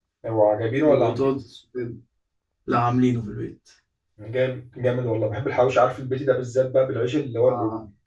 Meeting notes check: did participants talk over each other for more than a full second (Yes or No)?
No